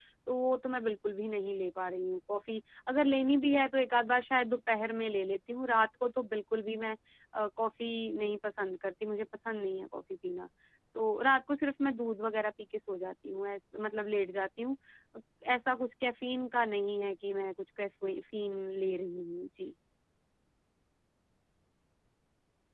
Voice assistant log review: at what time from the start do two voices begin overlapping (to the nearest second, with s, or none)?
none